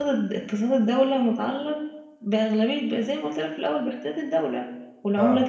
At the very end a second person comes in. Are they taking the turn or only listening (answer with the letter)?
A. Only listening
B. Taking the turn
A